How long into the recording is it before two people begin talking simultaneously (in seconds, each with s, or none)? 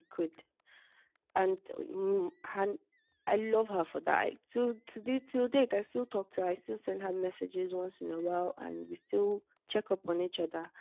none